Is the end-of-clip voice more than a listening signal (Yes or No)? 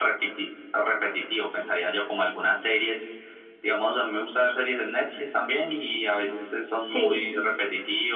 No